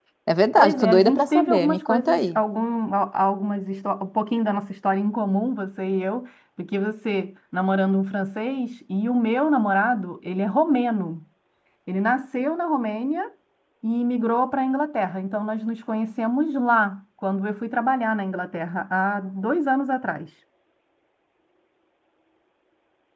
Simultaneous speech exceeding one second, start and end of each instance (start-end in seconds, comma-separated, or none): 0.6-2.4